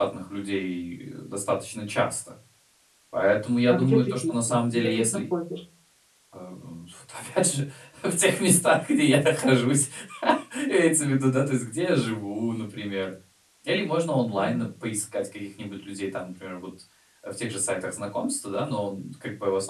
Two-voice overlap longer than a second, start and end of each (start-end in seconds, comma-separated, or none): 3.7-5.2